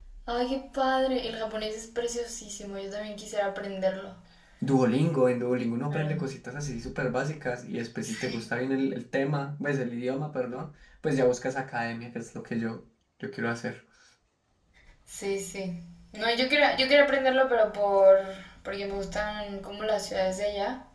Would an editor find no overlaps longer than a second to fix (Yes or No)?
Yes